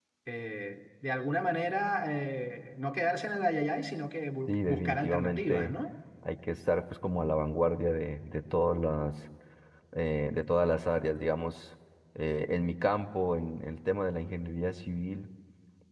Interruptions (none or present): present